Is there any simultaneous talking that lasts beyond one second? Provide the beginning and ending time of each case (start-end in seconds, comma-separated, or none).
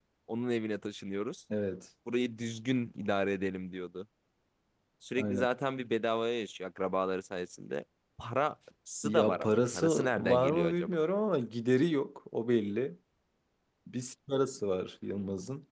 9.0-10.9